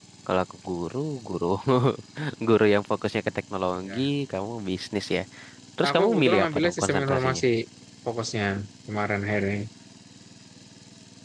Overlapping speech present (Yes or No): Yes